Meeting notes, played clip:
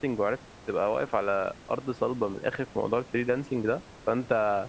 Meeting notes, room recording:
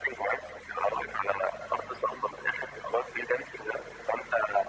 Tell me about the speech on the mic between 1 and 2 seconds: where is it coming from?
echo only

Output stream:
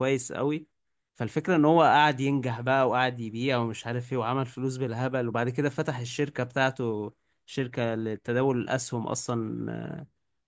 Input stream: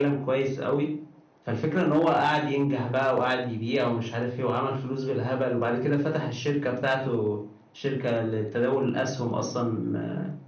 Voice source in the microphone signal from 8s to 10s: echo only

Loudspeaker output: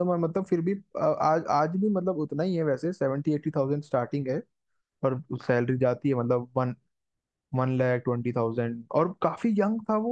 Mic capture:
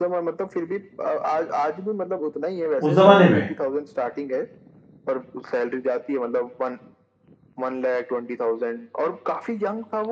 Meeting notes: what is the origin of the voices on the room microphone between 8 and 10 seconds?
echo only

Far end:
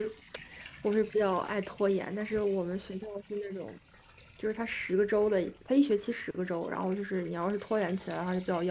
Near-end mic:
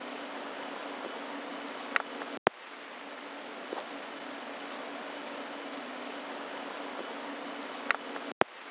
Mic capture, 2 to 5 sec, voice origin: neither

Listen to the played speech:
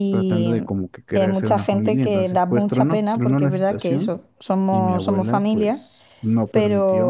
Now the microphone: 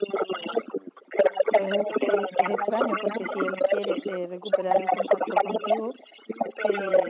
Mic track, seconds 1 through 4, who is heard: both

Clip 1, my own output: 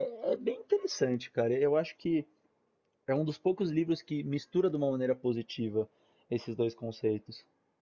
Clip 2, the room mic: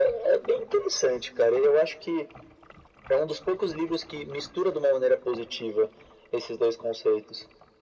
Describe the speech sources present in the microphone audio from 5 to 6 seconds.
echo only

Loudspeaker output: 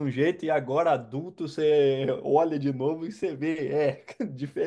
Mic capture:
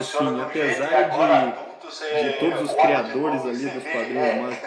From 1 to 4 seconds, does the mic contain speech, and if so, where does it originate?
both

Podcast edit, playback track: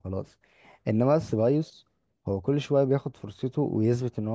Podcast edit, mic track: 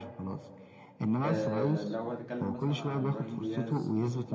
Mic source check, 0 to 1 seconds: echo only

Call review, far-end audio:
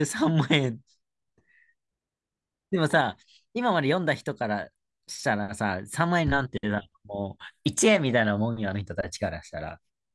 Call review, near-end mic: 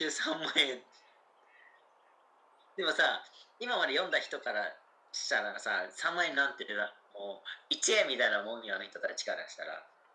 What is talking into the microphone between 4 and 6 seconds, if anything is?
echo only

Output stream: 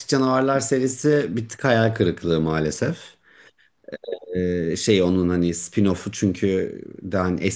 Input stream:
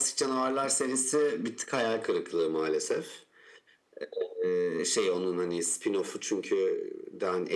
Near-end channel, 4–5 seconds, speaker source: echo only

